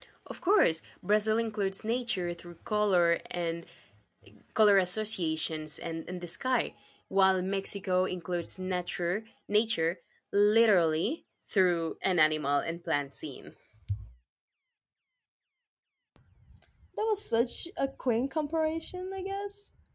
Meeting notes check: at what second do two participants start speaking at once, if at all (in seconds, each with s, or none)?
none